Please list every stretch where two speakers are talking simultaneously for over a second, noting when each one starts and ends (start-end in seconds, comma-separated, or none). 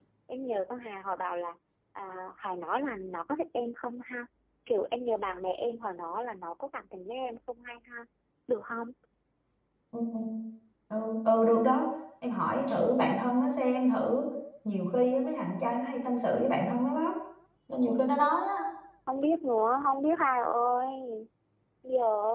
none